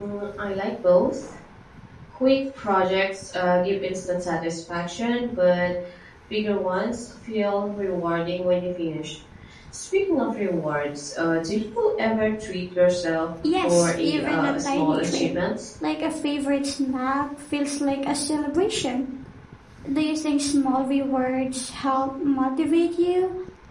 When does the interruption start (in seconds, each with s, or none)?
13.4 s